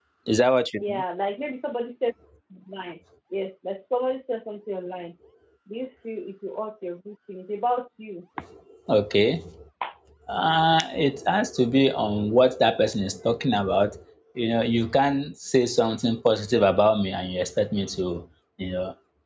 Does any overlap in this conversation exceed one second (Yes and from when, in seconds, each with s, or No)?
No